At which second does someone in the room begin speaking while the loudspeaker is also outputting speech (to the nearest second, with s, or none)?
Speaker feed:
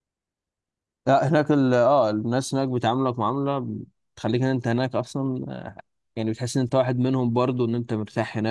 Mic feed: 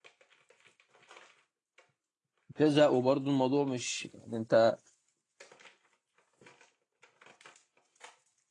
3 s